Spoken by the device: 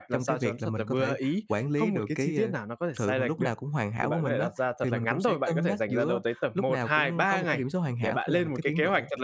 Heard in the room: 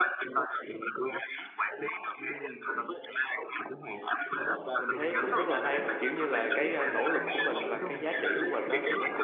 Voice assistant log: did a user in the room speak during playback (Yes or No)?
Yes